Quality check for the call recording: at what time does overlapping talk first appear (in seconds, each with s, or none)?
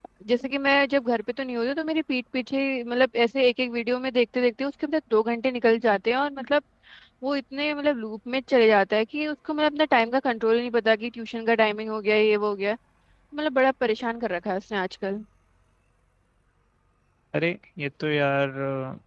none